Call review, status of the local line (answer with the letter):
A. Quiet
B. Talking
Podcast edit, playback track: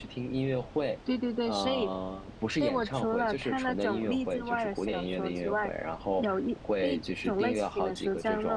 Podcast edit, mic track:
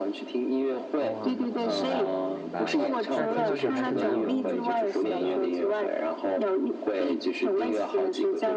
B